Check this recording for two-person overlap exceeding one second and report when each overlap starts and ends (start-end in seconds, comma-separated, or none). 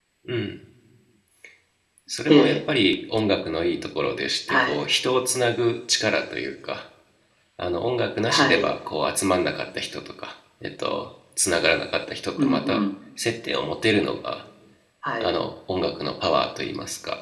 none